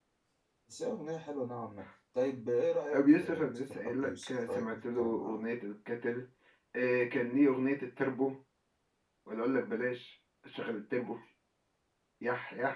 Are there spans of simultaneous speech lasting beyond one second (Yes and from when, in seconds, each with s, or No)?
Yes, from 2.9 s